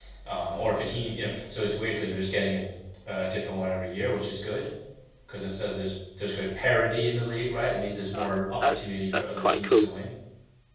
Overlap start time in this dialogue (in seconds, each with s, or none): 8.1 s